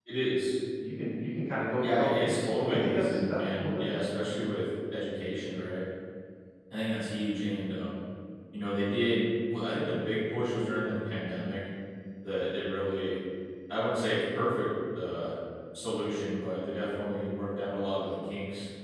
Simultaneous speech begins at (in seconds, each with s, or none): 1.8 s